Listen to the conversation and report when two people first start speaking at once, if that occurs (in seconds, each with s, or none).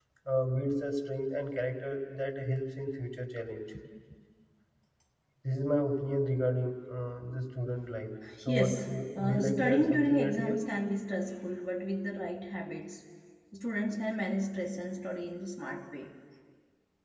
8.2 s